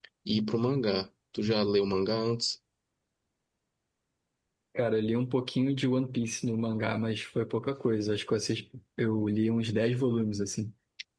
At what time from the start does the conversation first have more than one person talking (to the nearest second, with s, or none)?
none